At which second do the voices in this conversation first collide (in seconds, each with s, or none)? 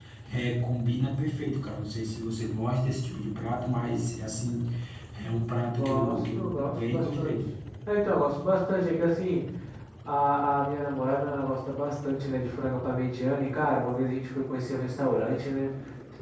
5.8 s